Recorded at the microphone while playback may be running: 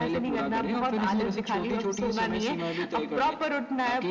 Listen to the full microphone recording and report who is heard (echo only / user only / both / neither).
echo only